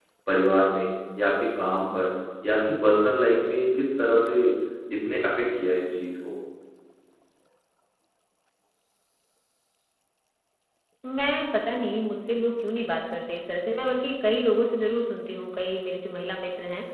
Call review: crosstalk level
none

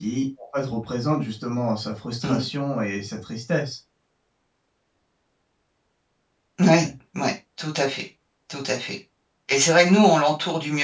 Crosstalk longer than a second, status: none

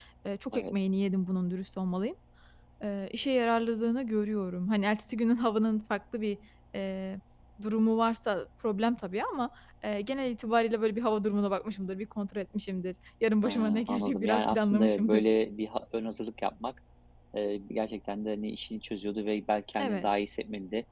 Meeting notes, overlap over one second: present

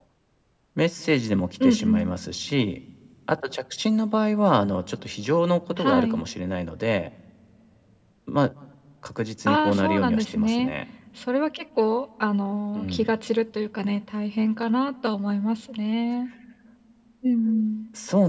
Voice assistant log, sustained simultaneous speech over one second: present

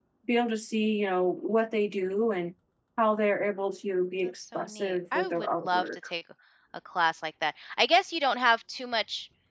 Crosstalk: present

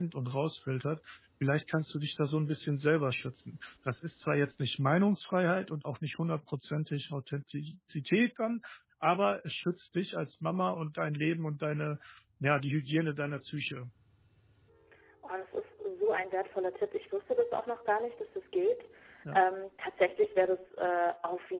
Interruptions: none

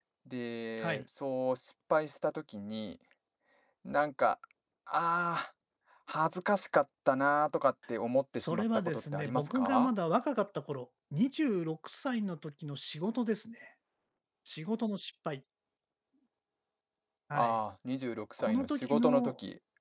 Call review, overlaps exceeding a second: present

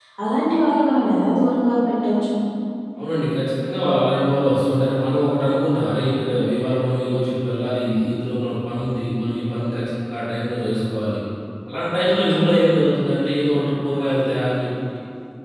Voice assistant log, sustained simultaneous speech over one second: none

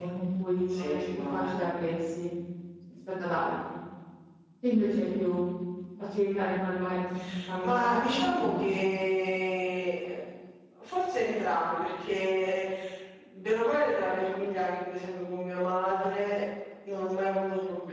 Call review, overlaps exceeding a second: present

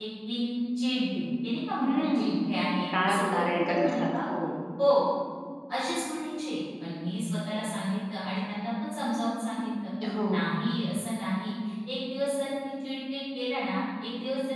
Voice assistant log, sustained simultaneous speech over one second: present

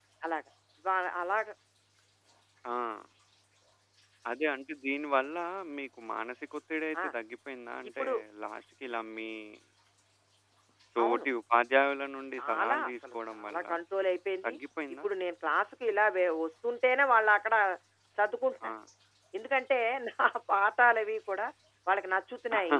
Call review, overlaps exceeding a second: present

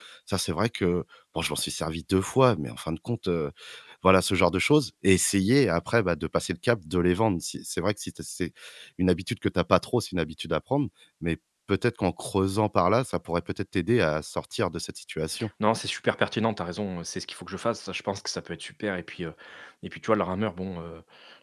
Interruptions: none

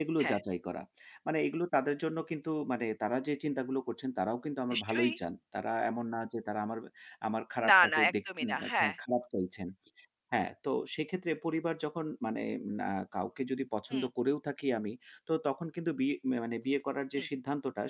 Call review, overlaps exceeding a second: present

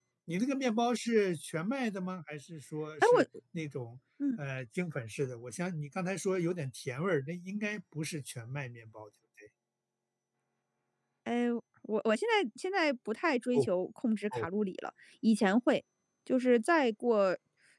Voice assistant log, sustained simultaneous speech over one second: none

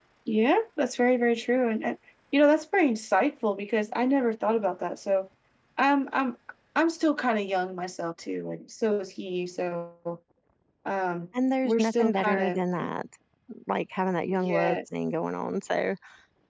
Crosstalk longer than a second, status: present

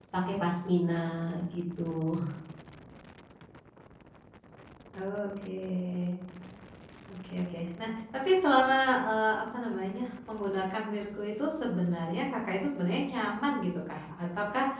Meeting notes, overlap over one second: none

